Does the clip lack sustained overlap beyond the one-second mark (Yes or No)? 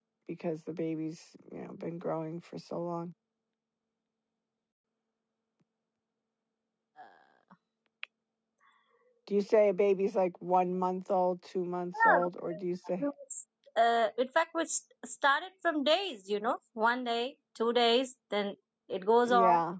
Yes